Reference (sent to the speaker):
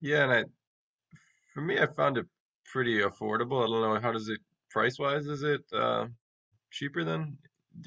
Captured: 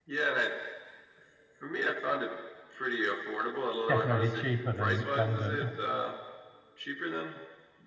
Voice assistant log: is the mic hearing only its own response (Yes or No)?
No